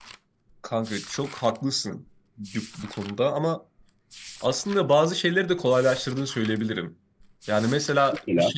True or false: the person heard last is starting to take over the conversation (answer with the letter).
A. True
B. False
B